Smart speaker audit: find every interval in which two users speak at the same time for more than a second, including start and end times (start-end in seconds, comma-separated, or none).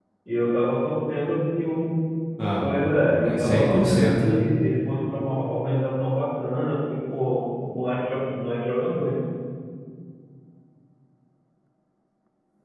2.6-4.4